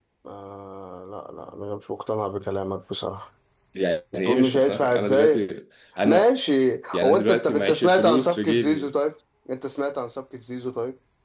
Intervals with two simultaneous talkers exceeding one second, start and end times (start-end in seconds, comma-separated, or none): 4.1-5.5, 6.9-8.9